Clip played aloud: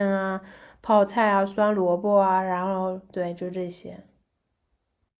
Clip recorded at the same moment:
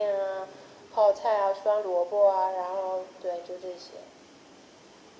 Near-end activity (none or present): none